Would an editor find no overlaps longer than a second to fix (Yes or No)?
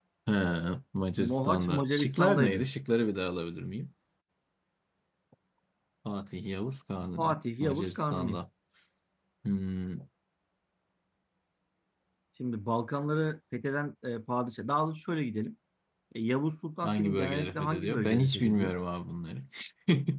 No